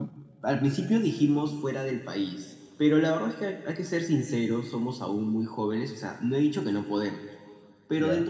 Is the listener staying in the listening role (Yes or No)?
Yes